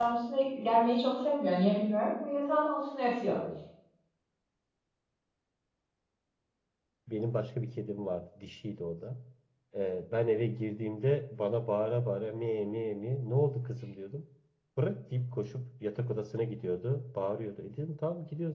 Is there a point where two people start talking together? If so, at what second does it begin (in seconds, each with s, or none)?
none